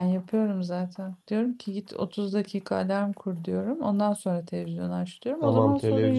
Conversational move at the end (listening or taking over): taking over